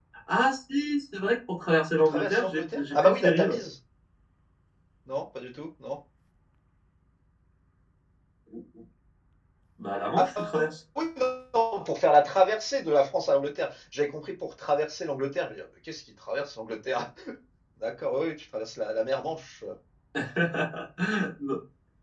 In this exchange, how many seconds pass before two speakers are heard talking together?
2 s

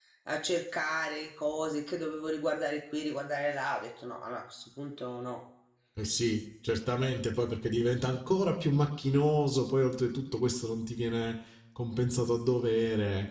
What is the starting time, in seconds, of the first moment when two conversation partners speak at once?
none

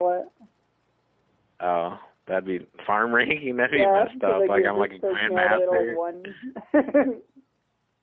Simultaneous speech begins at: 4 s

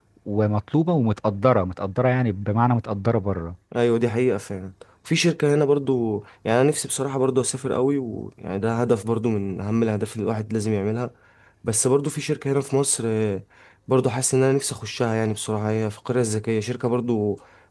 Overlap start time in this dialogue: none

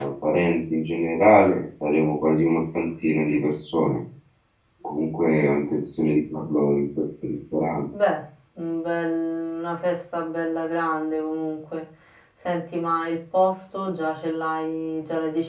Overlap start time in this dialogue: none

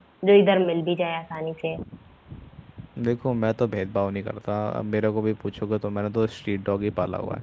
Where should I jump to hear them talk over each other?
none

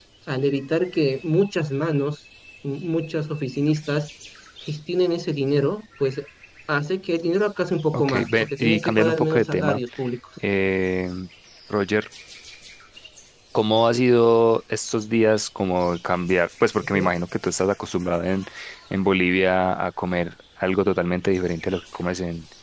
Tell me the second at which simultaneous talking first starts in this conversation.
8 s

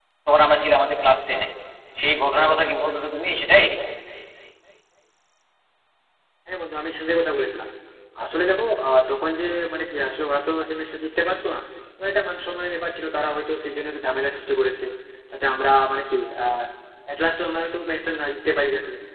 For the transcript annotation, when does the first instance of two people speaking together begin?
none

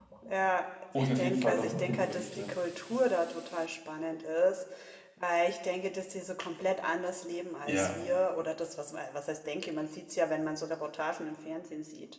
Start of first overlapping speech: 1 s

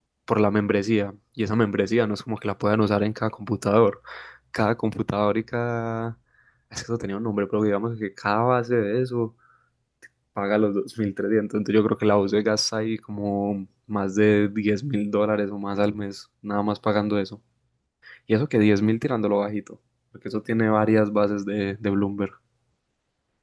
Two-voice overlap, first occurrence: none

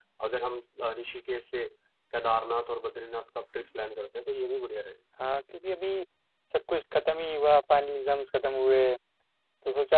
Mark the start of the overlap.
none

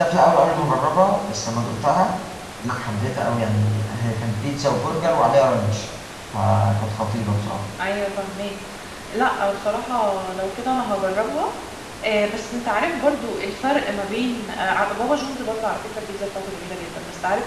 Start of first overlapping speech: none

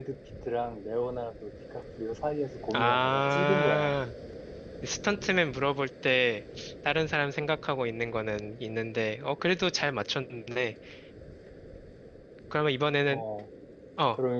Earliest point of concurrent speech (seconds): 3 s

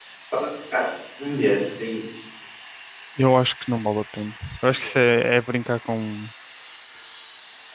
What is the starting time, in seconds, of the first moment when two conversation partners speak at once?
none

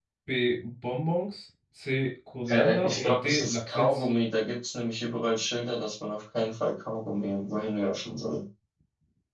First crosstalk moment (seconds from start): 2 s

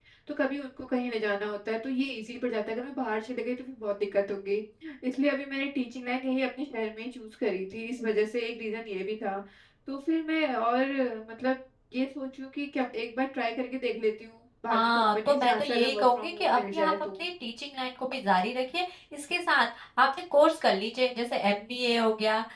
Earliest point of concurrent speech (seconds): 15 s

